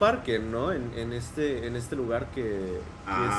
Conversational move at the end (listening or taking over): taking over